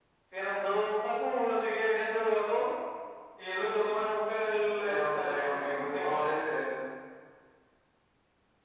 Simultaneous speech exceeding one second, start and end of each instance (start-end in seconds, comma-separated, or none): 4.5-6.3